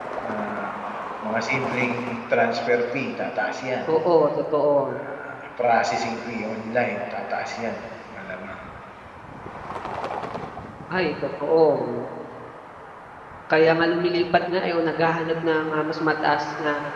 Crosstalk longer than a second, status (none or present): none